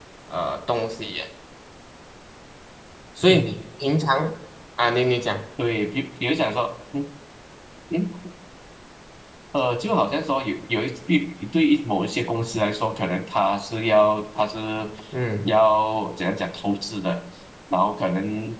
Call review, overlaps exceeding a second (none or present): none